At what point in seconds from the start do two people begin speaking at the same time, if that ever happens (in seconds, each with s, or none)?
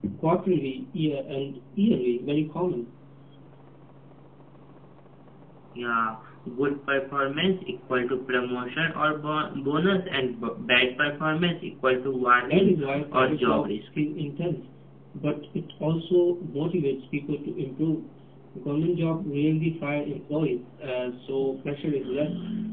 12.5 s